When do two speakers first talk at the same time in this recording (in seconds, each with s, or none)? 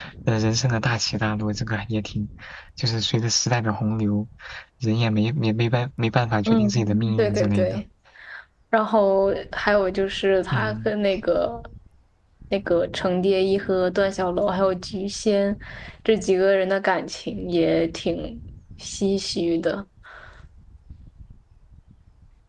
6.5 s